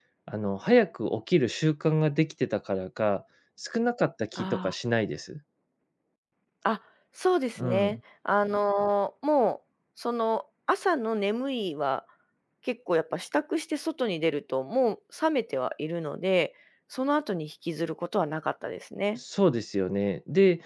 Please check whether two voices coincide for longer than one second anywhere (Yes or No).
No